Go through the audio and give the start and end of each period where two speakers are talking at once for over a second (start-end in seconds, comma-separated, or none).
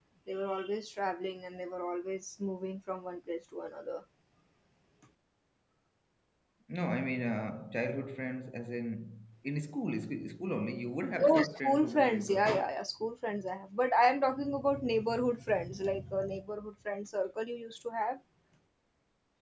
11.2-12.4